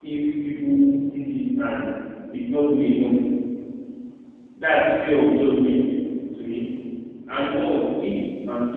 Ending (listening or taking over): listening